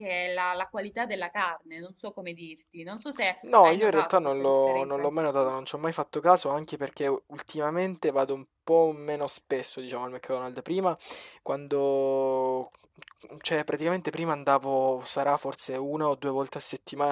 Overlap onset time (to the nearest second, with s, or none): 3 s